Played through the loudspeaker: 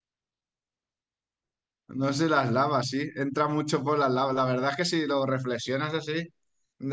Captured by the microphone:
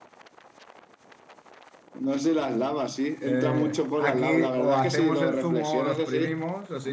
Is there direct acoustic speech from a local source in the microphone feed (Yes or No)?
Yes